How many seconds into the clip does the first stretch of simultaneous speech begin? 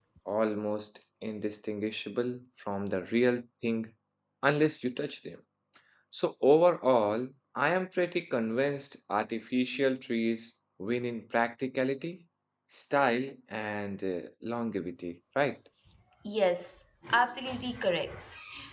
none

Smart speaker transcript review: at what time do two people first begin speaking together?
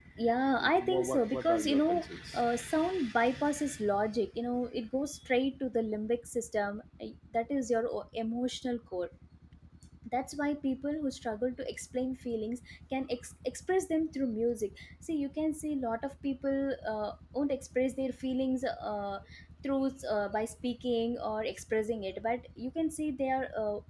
1 s

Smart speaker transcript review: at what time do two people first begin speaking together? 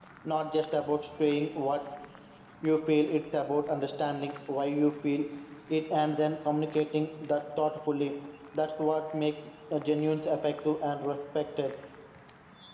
none

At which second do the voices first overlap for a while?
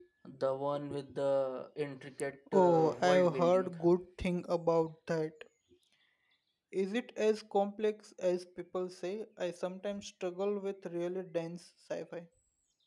2 s

